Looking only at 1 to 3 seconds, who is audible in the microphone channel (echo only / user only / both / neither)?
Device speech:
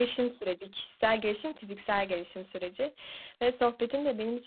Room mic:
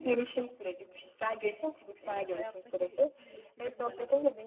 both